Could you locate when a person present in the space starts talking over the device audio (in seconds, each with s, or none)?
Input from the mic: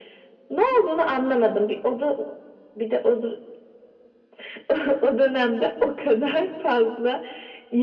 none